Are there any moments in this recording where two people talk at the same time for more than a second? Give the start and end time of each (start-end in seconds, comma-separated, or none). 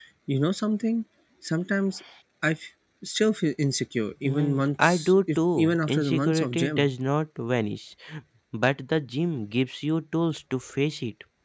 4.2-6.9